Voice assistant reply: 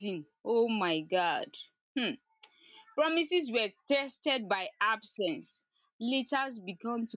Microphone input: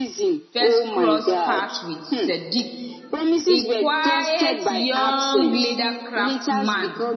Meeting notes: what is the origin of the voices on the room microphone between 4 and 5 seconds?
both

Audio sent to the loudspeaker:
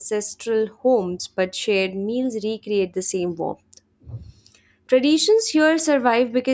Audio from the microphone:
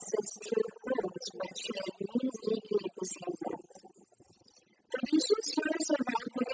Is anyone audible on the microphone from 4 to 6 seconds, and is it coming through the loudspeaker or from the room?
echo only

